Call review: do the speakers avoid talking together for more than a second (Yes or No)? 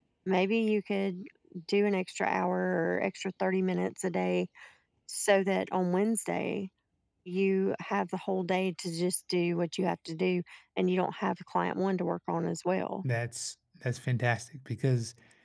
Yes